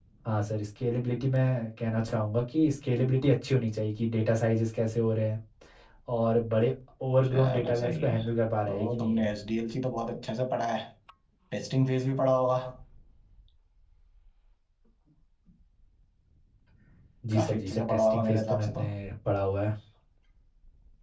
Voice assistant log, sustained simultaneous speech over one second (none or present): present